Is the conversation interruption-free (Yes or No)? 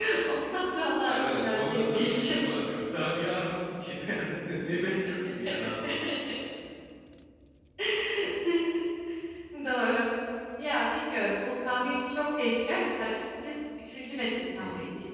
No